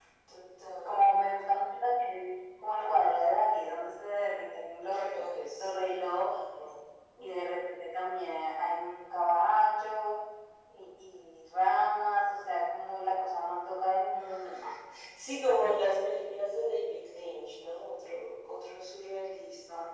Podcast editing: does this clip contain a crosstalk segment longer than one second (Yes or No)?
No